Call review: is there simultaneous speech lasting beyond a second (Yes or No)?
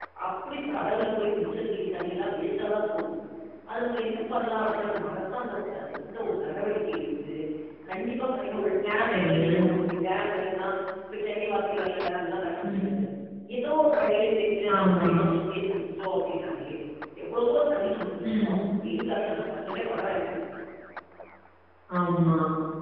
No